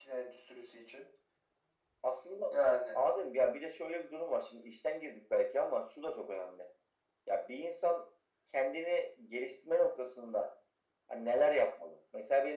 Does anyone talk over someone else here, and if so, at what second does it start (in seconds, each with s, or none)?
none